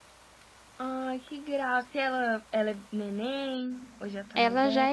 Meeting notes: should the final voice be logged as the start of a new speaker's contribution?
Yes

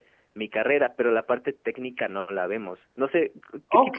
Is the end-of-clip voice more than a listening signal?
Yes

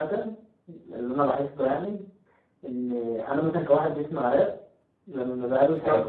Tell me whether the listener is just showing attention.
Yes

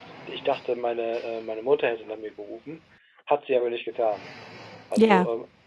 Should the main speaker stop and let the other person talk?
No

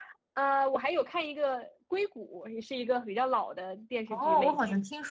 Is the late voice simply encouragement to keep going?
No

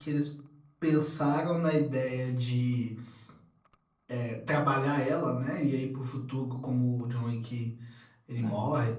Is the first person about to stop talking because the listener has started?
No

